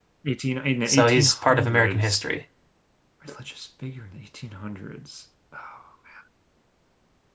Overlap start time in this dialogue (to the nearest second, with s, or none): 1 s